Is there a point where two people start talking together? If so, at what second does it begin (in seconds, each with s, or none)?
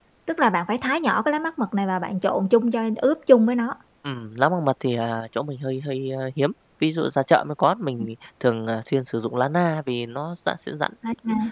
none